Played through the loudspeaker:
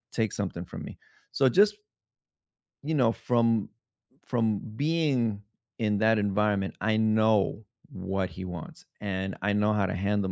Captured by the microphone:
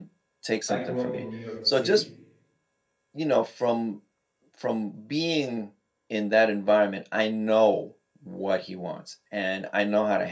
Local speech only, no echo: I grew up in New York City.

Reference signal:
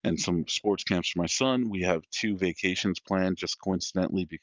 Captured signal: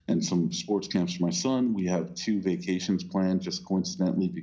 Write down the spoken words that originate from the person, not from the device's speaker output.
none

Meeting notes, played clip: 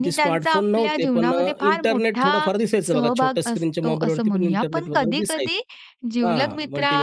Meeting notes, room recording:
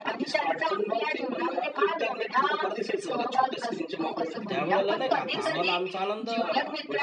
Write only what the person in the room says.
तर त्यावेळेला नाही का आता आम्हाला आमचा आनंद

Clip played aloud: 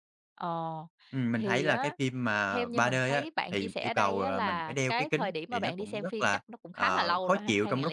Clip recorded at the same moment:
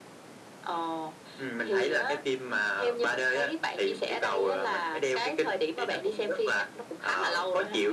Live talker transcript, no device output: none

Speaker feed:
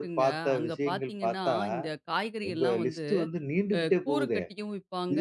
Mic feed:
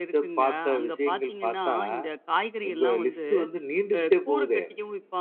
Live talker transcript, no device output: none

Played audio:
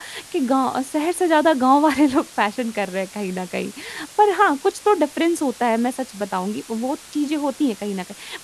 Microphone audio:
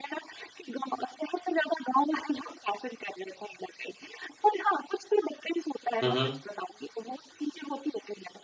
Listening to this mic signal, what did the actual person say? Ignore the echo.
हुँ, हुँ।

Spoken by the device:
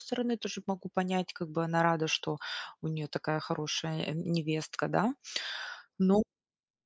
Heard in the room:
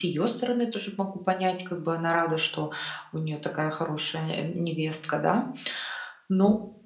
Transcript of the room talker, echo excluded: none

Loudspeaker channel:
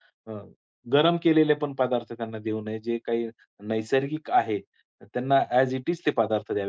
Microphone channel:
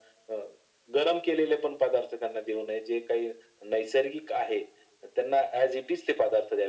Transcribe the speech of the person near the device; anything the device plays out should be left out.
none

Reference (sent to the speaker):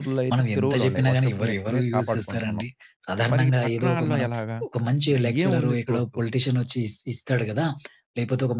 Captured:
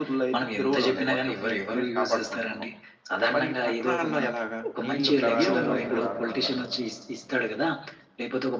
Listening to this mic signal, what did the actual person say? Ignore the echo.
నీళ్లు ప్రవాహం బయటికి రాకుండా

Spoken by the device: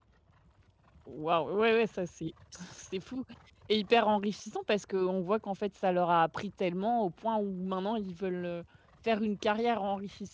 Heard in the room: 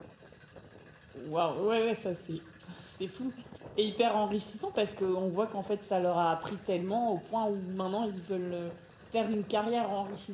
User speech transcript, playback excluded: none

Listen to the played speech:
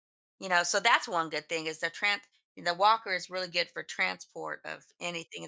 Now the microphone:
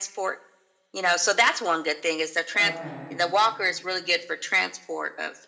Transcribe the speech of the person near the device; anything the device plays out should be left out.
Okay.

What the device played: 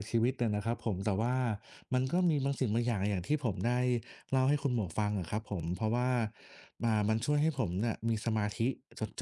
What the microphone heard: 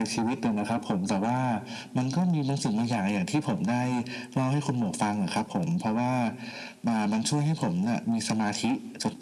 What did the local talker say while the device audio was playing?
none

